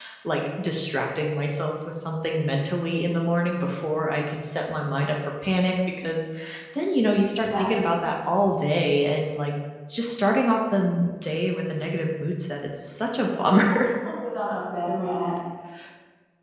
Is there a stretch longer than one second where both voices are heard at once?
No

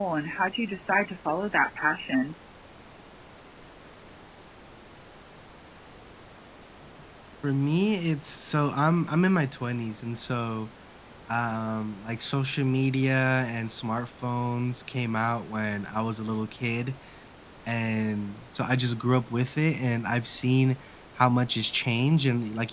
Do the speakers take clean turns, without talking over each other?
Yes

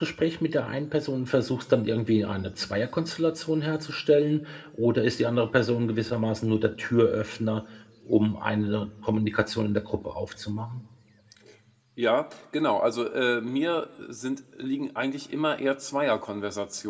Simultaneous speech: No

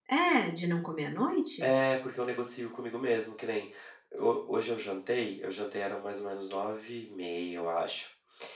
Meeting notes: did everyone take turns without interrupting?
Yes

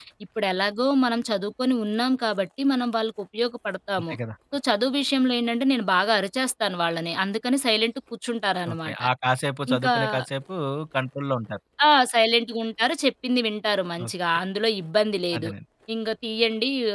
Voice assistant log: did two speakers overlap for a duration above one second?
No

